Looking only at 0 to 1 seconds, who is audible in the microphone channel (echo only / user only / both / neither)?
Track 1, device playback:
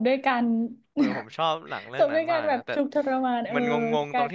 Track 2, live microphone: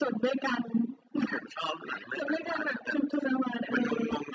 echo only